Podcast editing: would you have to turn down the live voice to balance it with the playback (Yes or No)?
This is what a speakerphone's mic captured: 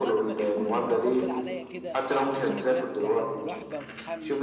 No